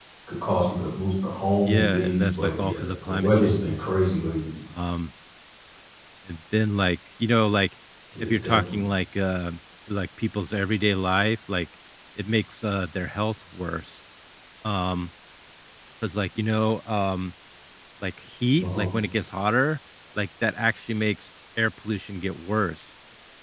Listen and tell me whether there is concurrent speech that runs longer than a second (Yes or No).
Yes